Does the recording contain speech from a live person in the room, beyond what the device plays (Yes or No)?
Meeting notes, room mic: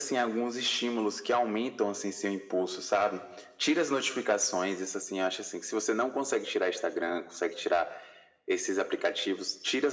No